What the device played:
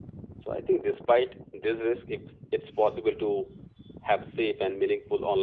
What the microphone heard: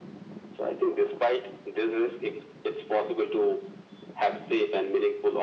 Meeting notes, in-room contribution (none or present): none